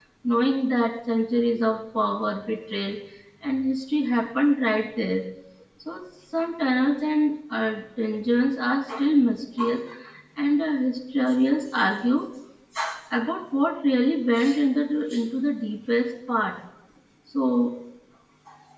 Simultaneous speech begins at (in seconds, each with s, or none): none